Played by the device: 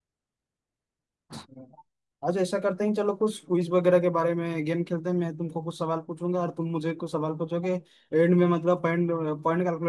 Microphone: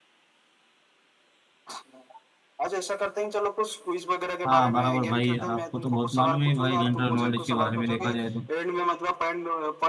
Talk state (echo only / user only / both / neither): both